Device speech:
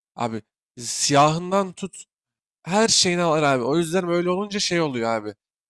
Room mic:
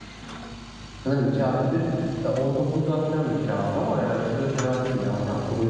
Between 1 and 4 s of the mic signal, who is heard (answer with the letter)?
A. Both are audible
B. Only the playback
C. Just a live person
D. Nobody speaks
C